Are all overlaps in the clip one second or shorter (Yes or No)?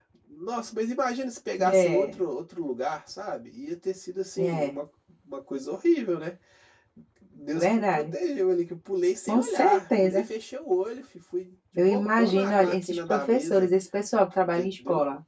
No